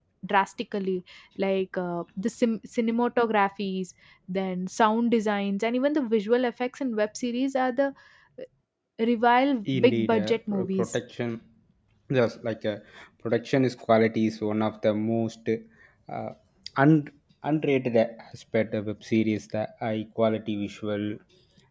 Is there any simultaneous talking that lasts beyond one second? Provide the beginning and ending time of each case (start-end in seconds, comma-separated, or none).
9.7-11.0